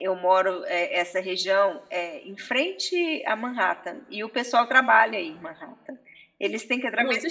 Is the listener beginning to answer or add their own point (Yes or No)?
No